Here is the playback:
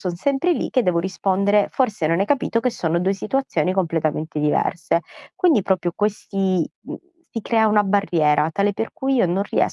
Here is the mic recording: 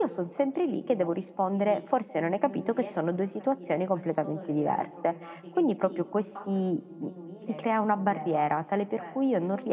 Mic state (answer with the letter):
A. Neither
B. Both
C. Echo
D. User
B